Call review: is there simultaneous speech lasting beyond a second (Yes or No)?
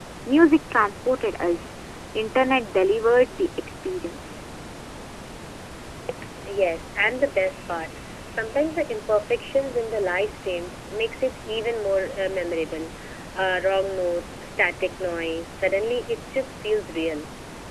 No